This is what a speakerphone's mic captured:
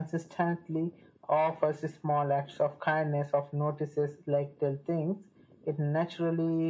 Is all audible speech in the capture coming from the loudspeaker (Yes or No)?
Yes